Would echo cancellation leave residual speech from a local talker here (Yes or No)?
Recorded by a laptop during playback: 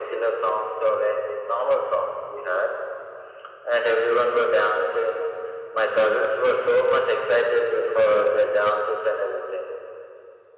No